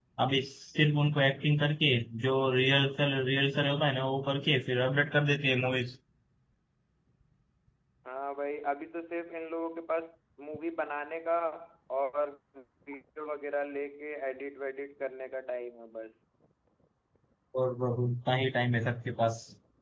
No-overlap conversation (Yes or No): Yes